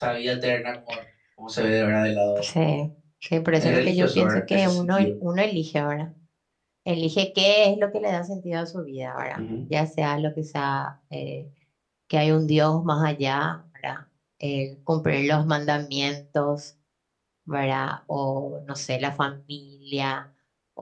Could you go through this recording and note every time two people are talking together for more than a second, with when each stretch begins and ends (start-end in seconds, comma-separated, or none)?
3.5-5.1